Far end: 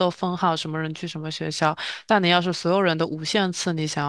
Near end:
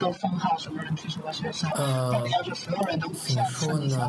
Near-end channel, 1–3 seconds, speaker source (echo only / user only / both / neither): both